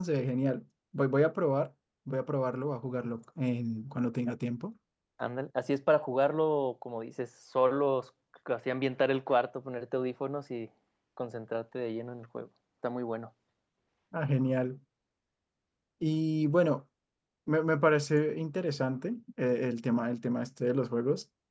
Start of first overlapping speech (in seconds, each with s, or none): none